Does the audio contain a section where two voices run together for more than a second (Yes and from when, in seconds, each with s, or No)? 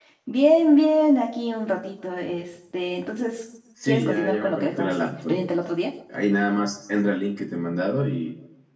Yes, from 3.8 s